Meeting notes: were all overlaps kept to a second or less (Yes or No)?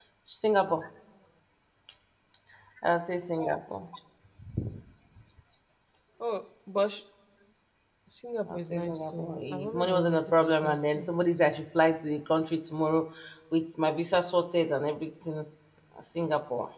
No